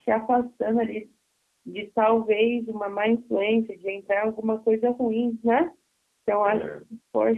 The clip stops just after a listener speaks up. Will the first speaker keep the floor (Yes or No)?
Yes